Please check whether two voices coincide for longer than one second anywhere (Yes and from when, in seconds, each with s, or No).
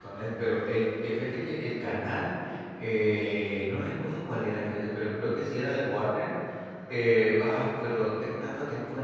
No